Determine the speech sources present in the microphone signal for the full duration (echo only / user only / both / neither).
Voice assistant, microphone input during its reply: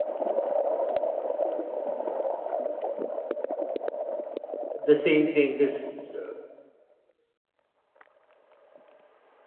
user only